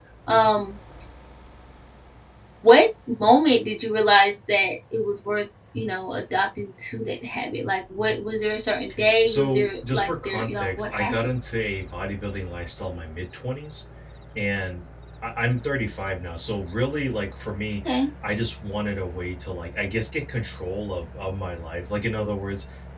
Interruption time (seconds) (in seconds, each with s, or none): 9.2 s